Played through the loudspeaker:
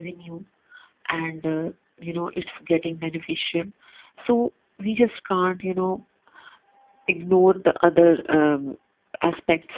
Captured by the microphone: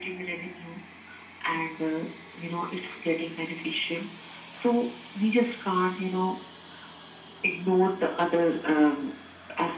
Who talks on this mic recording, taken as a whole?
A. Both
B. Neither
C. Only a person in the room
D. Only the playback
D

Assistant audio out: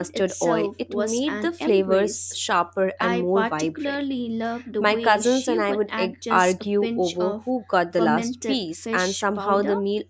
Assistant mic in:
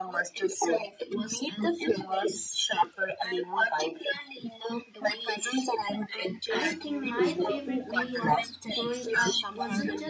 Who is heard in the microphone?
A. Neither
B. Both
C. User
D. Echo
B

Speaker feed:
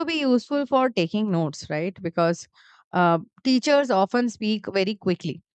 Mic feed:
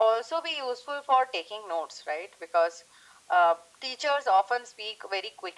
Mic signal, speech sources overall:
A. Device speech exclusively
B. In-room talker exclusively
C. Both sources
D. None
A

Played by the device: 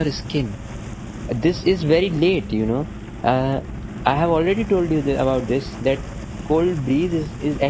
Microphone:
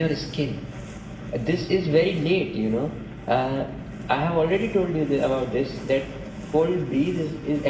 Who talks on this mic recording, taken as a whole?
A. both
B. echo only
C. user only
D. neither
B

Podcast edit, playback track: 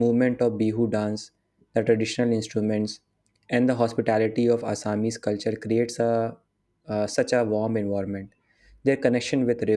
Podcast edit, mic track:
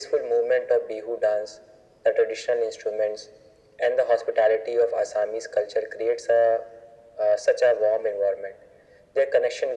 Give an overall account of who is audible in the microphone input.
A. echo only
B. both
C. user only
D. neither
A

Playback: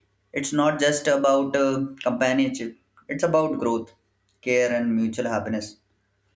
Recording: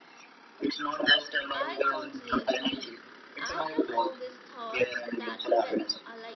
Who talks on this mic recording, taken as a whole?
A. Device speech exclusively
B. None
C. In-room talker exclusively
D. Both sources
D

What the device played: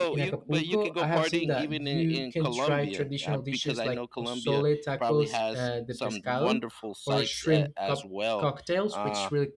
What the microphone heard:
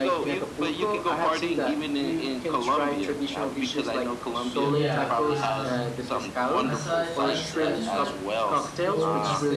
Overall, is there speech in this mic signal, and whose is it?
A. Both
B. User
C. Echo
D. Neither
A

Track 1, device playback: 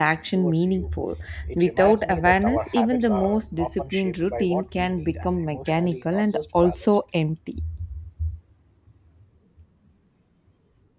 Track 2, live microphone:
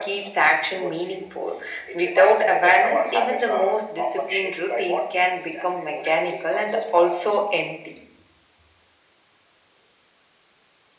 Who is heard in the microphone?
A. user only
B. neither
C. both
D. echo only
D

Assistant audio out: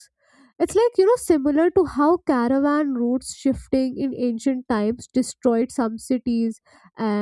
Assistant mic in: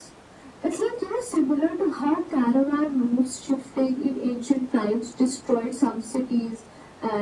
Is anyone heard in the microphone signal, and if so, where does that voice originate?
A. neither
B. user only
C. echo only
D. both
C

